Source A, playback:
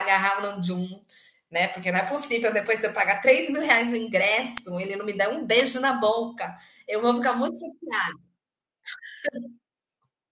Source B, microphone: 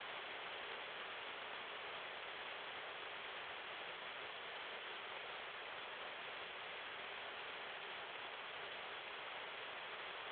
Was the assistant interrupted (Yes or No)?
No